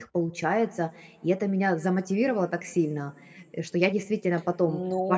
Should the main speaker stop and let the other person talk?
Yes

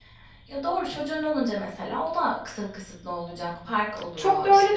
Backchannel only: No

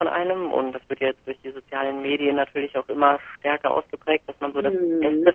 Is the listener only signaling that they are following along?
Yes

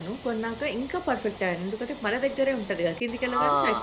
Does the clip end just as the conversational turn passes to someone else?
Yes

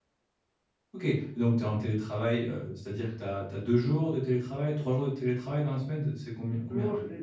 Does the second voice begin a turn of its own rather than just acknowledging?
Yes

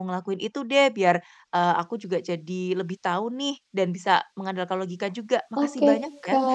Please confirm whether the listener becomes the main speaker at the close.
Yes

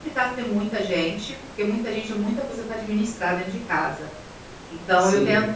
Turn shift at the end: No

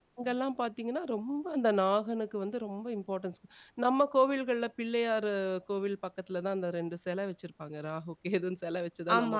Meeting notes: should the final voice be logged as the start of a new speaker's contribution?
Yes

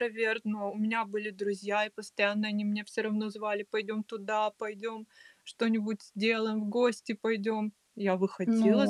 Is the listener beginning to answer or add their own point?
Yes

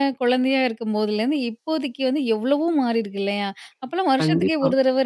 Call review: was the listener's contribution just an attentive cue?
Yes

